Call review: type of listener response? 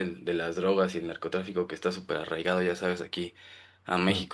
listening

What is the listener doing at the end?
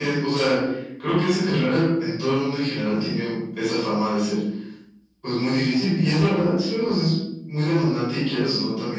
listening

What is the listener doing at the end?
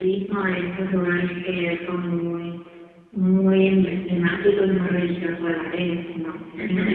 taking over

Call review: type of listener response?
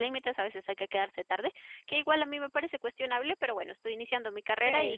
listening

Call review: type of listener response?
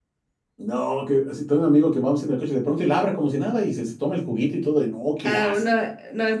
taking over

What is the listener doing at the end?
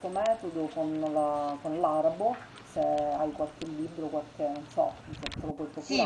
taking over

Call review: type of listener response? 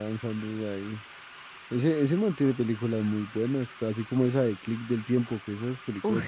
taking over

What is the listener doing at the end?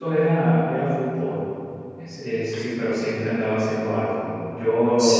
listening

